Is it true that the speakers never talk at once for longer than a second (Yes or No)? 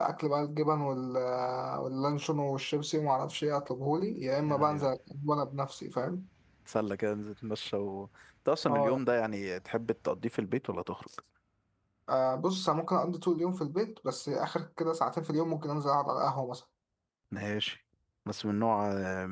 Yes